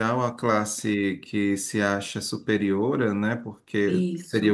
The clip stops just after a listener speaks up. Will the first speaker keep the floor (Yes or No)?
Yes